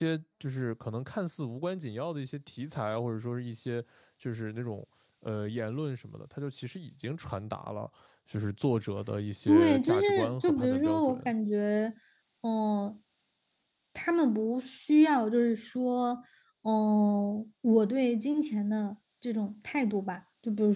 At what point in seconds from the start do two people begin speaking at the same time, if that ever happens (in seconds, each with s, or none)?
9.5 s